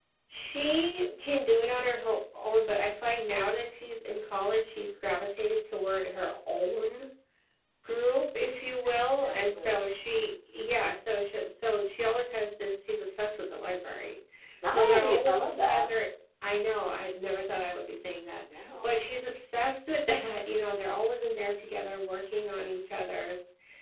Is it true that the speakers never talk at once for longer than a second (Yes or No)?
No